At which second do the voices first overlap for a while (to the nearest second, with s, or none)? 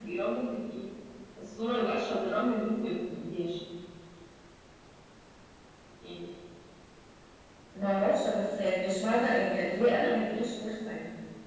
none